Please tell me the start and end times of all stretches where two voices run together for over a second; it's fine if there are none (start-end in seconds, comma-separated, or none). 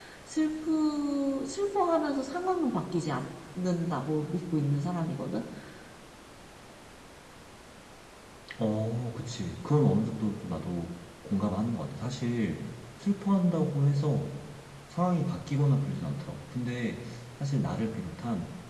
none